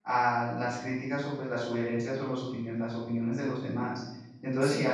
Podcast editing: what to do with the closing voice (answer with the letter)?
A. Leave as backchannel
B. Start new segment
A